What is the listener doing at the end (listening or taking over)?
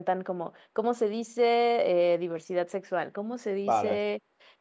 listening